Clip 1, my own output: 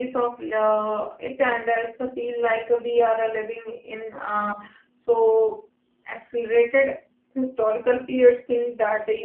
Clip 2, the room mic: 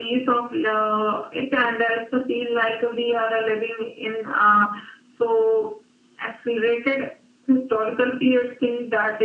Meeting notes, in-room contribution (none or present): none